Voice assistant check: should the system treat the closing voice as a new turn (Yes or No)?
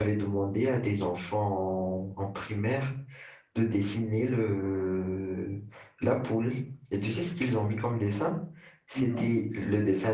No